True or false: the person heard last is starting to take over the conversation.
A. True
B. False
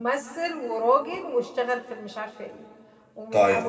B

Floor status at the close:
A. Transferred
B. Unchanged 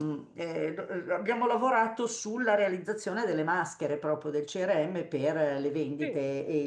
B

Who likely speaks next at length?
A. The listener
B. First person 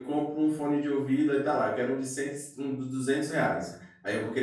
B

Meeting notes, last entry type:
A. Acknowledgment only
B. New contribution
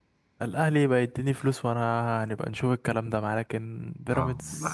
B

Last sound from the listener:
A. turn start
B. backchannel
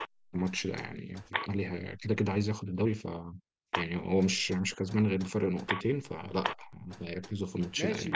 A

